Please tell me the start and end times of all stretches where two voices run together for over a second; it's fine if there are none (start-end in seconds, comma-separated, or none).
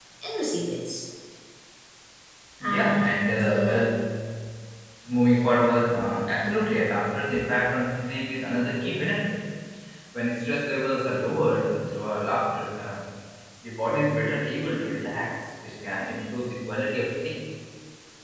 2.6-3.9